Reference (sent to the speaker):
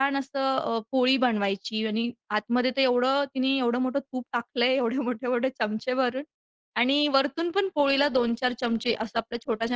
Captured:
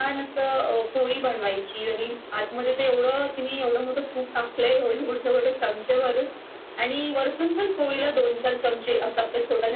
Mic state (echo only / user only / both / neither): echo only